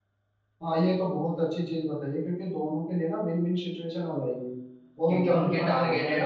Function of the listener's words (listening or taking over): taking over